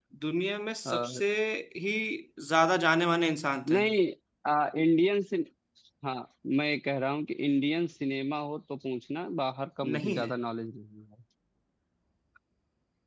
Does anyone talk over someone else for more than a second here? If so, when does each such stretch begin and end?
none

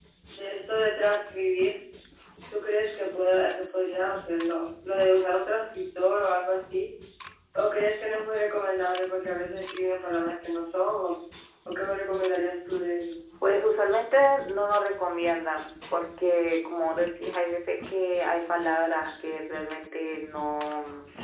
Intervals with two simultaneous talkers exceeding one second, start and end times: none

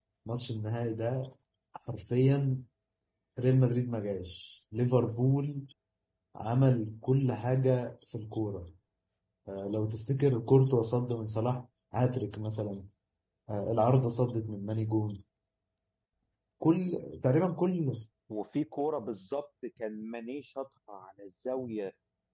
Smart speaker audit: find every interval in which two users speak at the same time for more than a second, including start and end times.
none

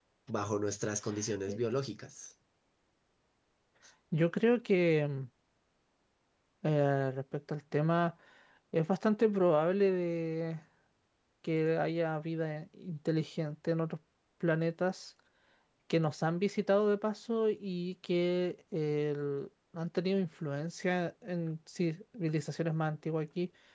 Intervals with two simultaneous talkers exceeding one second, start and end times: none

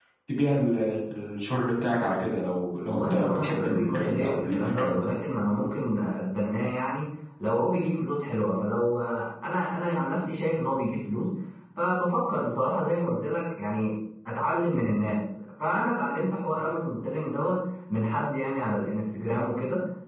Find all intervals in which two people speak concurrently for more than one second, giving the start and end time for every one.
2.9-5.1

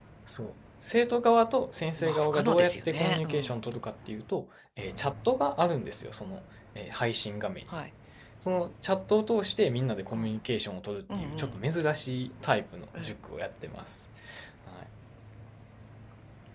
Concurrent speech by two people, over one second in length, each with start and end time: 2.0-3.6

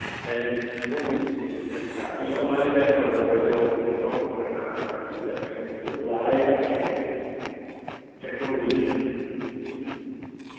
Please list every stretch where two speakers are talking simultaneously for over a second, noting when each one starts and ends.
2.0-3.6

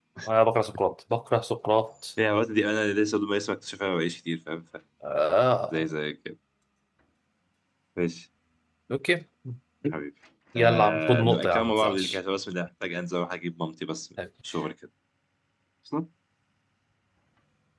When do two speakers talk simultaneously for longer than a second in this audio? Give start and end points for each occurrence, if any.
10.6-12.2

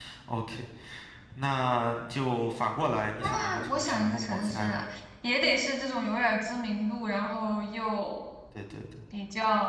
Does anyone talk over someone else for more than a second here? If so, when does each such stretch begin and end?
3.3-4.8

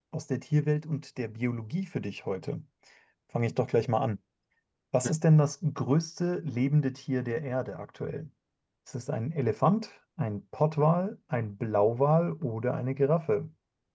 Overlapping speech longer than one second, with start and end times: none

